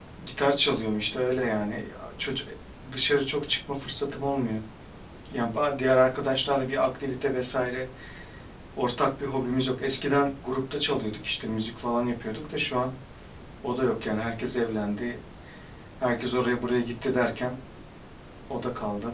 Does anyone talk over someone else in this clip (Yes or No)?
No